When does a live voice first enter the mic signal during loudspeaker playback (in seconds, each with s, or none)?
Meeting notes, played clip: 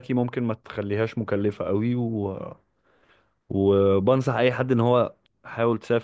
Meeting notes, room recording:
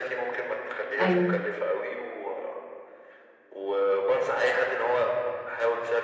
1.0 s